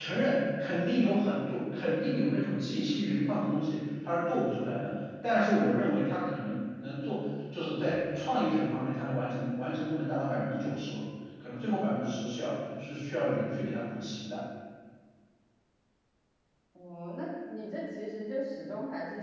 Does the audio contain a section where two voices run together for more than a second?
No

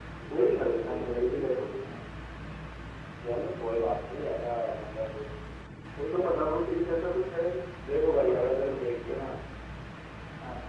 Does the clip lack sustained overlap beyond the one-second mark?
No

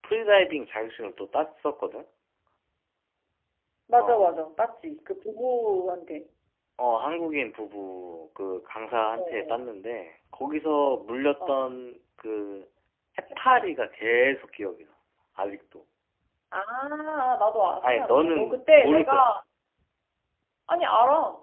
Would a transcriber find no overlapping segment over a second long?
No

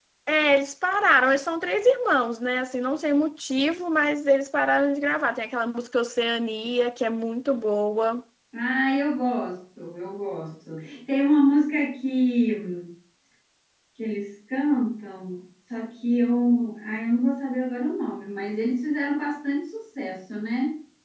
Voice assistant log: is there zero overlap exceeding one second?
Yes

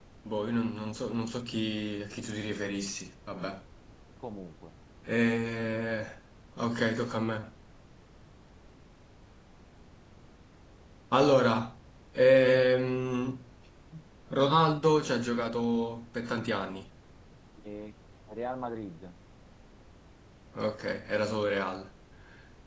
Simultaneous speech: No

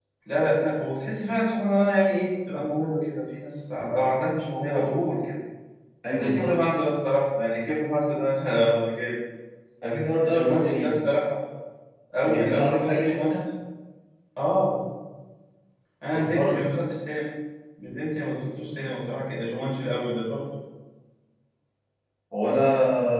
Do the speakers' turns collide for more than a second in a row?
Yes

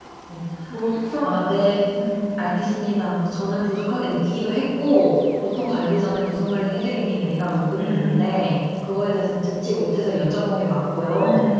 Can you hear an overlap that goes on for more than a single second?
No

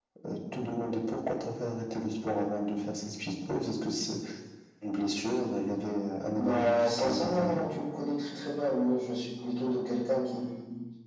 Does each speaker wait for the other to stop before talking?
No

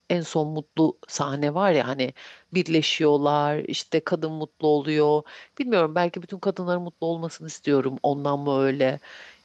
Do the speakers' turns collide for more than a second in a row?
No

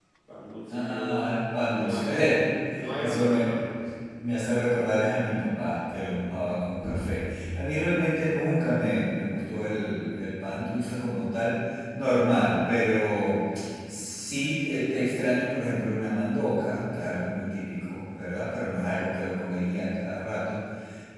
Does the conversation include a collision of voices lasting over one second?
Yes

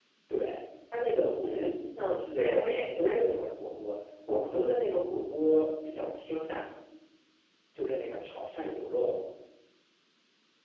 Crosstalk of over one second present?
Yes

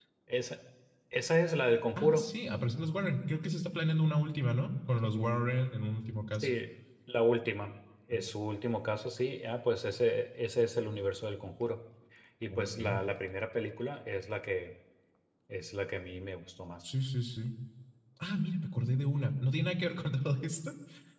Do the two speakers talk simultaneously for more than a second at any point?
No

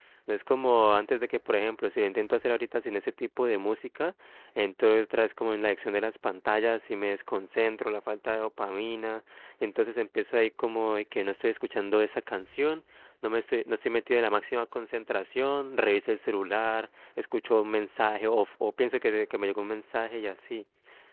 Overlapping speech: No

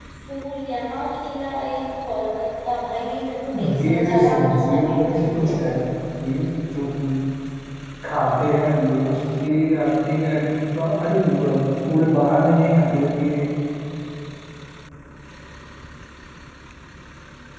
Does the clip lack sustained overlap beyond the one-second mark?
No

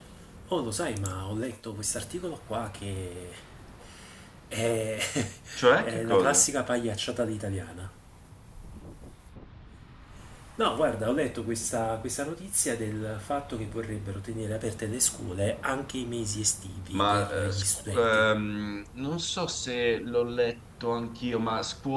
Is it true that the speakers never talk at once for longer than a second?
No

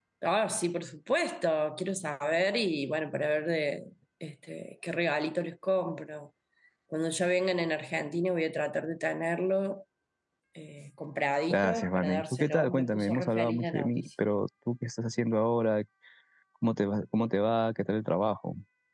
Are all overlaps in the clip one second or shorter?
No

